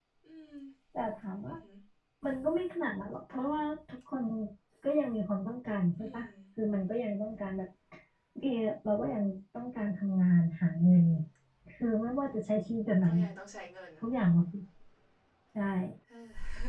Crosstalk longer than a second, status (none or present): none